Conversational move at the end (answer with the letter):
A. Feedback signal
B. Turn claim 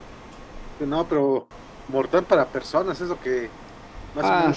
B